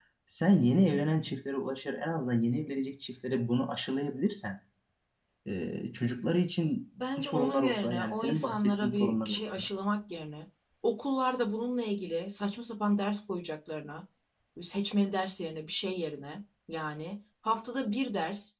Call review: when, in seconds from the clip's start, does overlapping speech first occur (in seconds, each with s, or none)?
7.0 s